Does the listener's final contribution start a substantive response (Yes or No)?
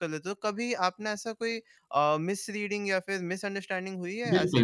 Yes